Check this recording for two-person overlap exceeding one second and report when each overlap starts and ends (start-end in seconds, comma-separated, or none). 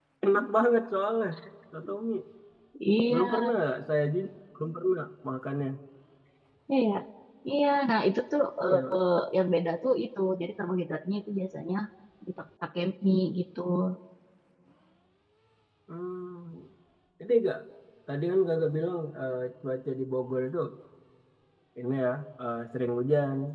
none